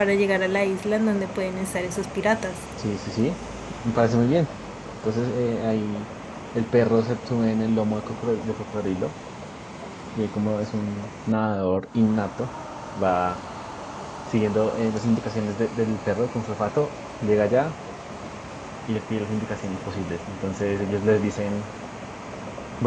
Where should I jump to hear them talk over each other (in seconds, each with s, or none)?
none